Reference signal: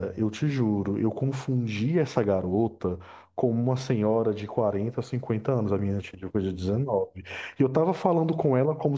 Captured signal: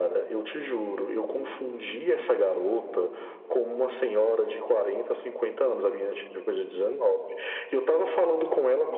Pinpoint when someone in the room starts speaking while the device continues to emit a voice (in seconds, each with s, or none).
none